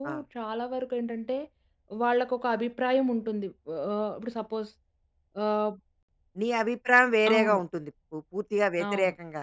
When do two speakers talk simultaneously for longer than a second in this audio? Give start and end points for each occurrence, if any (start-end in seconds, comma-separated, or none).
none